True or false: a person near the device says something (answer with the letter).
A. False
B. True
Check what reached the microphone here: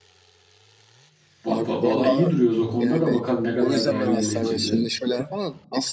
B